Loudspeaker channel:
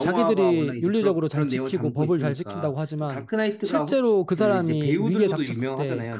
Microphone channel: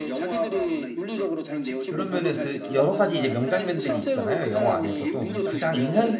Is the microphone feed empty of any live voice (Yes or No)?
No